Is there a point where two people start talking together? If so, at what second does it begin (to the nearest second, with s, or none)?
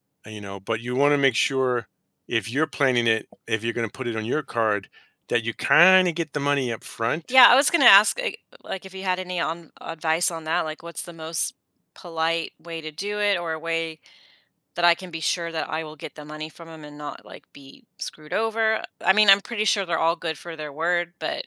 none